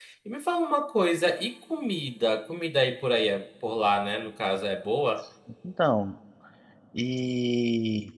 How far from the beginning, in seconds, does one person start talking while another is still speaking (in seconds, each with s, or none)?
none